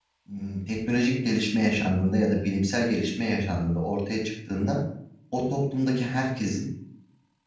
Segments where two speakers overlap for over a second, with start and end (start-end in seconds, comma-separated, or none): none